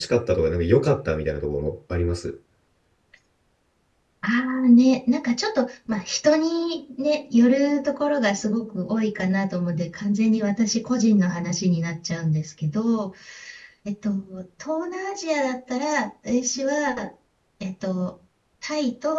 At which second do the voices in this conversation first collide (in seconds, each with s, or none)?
none